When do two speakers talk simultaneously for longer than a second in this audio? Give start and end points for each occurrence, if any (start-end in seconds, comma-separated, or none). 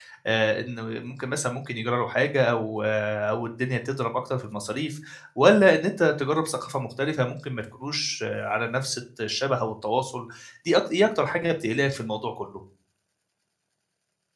none